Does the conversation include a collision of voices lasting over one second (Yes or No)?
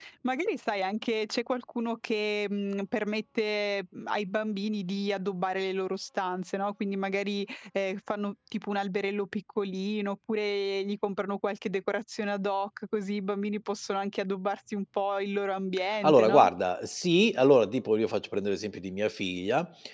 No